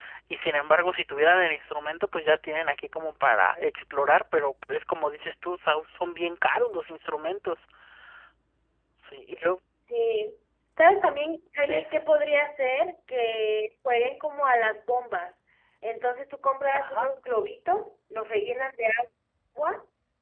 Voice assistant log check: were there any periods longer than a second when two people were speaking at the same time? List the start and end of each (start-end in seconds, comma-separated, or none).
none